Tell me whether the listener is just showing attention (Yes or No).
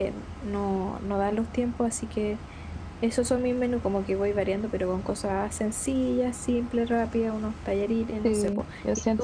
No